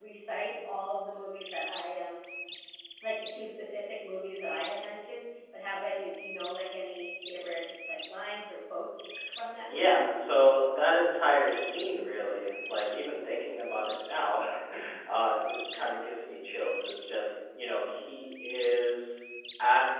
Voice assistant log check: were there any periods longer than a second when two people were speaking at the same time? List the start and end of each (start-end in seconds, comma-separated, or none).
none